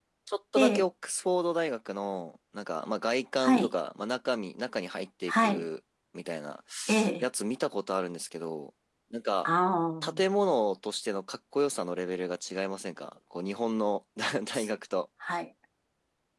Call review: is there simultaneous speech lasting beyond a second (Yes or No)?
No